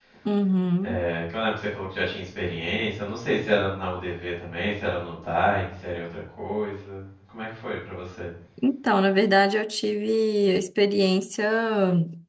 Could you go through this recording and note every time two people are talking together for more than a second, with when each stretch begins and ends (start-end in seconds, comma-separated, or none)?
none